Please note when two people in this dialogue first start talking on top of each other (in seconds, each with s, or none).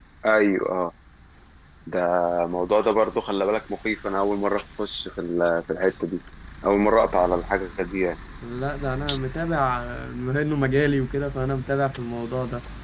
none